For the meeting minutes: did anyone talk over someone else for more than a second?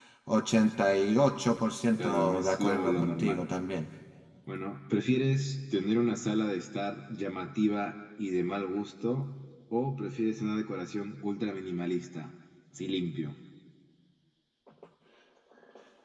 Yes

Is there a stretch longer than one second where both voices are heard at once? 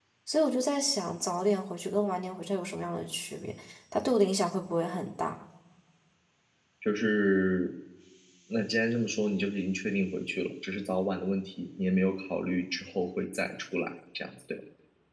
No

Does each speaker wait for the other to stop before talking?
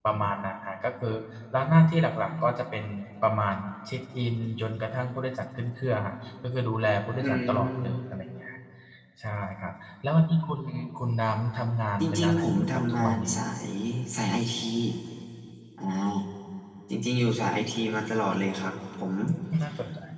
No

